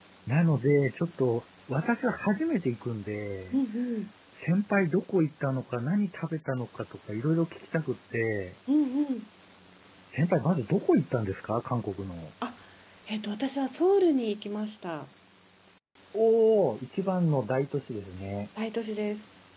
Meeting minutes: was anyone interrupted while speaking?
No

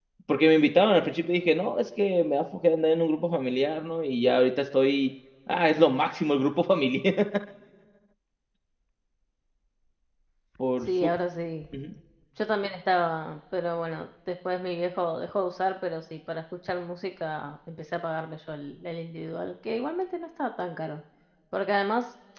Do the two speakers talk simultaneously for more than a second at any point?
No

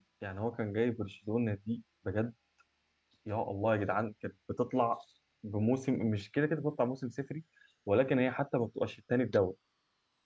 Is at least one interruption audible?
No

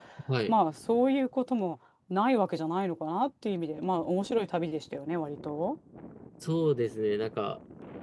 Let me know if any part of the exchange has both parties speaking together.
No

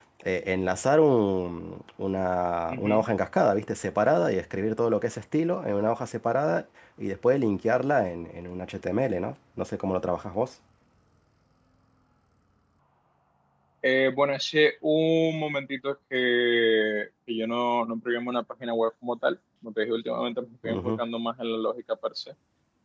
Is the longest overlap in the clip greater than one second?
No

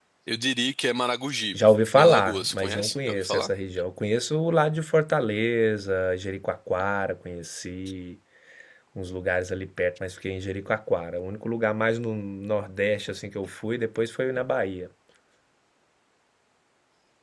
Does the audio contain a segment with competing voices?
Yes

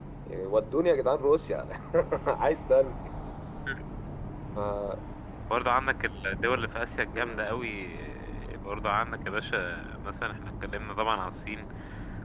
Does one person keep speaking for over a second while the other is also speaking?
No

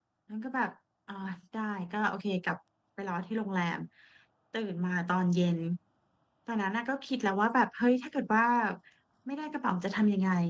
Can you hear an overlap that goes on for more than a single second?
No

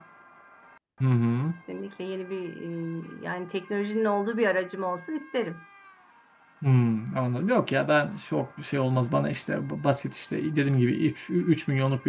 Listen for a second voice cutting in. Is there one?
No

